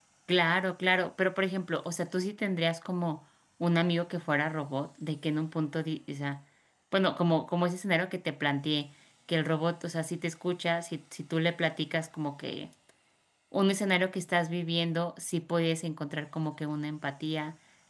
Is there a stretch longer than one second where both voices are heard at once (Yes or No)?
No